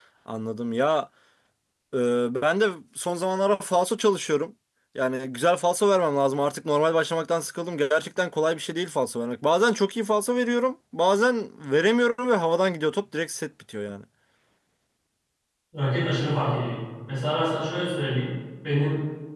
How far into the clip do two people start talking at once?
none

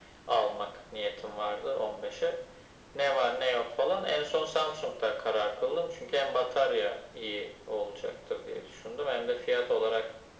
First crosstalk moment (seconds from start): none

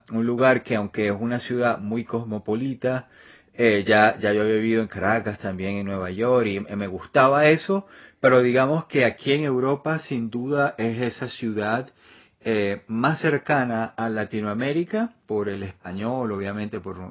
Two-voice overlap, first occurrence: none

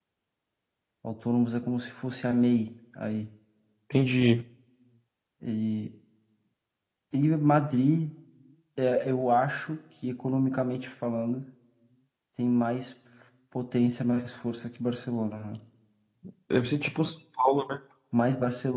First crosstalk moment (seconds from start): none

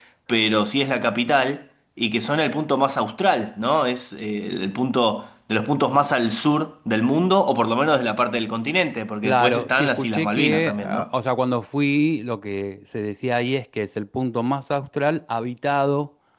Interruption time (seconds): 9.2 s

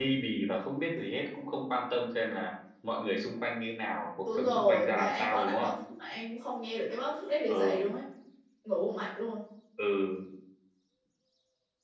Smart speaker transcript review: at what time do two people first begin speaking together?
4.2 s

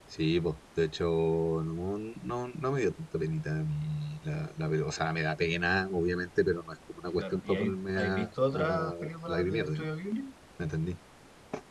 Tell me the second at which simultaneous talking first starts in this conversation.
7.2 s

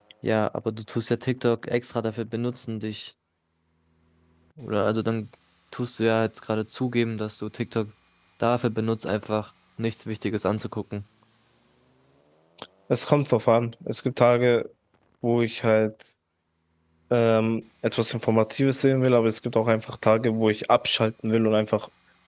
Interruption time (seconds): none

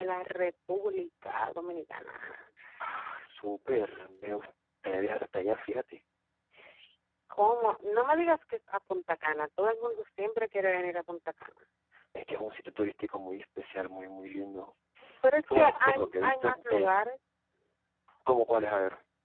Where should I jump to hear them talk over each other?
15.4 s

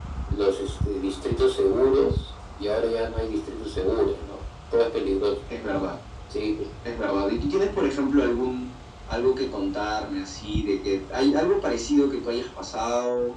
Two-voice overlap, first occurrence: none

